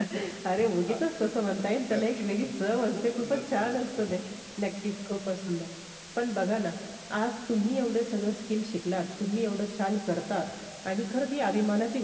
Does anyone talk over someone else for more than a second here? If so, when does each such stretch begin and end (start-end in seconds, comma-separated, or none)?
2.9-4.1